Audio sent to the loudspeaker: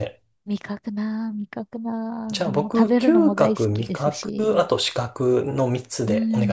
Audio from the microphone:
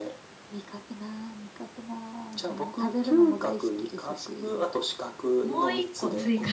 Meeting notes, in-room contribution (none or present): present